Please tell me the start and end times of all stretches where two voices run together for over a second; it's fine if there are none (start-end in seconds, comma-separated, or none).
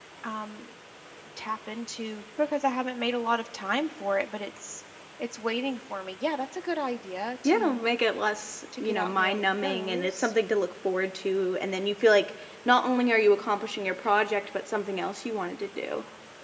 8.8-10.3